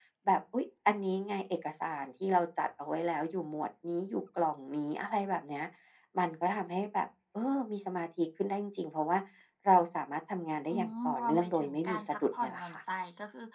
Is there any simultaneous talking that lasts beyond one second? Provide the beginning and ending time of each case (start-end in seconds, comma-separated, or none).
10.7-12.8